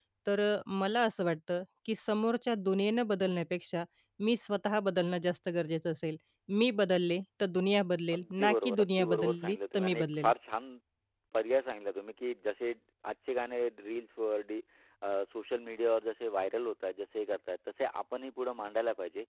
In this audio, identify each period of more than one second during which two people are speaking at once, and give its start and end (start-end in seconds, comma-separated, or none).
8.1-10.3